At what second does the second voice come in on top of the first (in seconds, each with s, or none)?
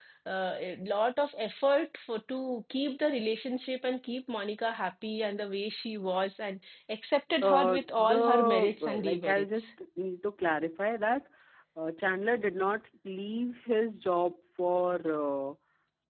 7.4 s